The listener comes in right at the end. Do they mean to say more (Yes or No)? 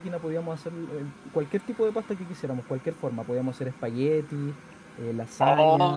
Yes